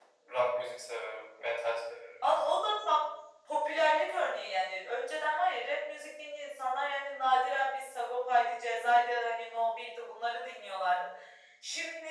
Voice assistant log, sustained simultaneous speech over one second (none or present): none